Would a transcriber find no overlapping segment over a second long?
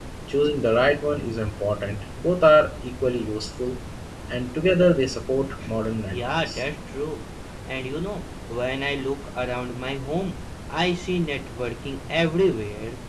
Yes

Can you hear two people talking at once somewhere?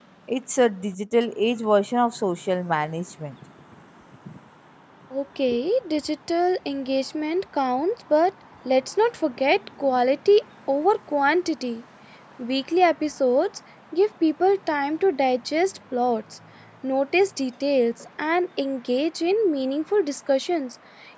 No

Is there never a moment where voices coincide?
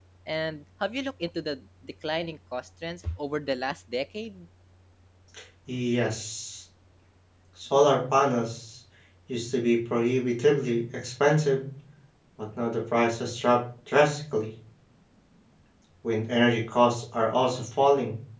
Yes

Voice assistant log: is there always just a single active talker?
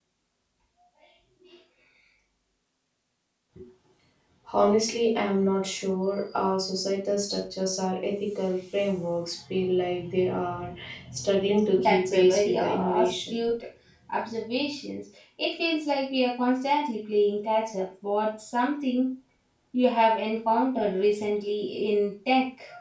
No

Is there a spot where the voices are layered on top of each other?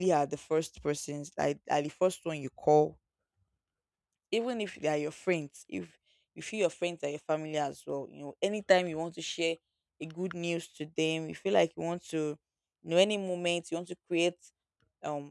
No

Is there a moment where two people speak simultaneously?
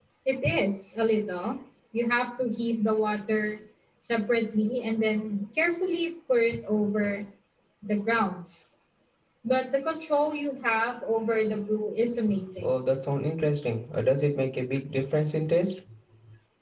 No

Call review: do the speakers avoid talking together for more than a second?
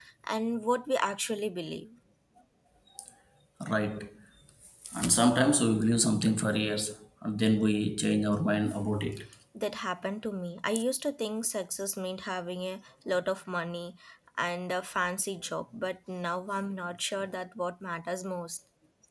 Yes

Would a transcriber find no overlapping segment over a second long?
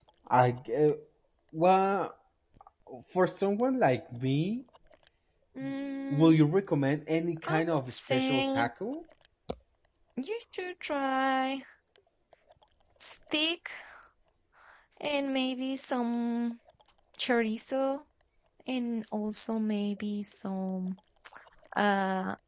No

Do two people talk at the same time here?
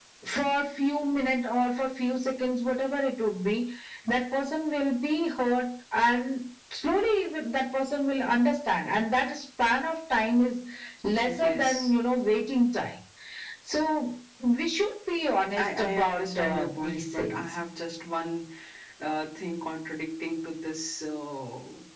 Yes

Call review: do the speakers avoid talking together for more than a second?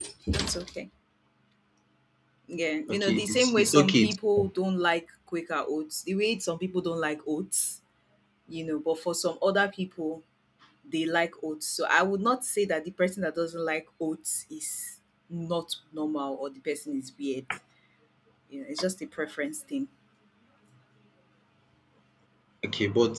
No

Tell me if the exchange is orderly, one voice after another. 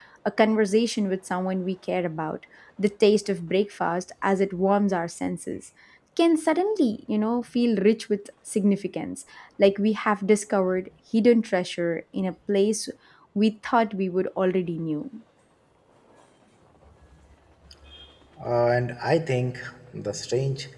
Yes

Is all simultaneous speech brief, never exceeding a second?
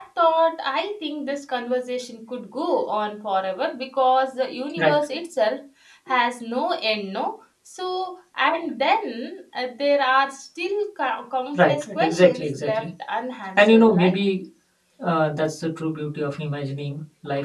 No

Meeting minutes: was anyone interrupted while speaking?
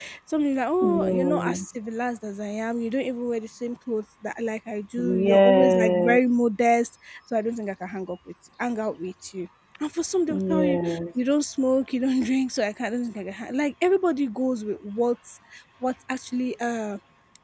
Yes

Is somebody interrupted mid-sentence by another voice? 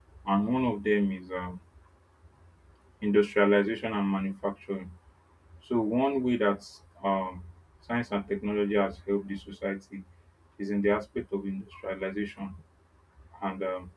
No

